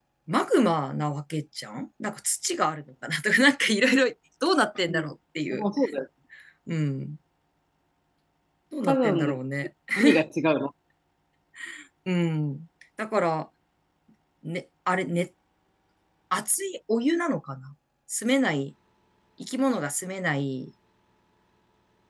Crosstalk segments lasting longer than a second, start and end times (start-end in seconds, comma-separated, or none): none